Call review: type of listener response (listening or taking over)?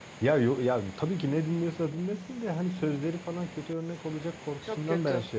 listening